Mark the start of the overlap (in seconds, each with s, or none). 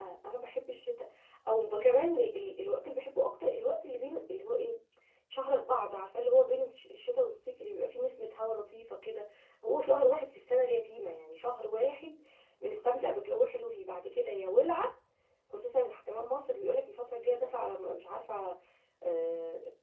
none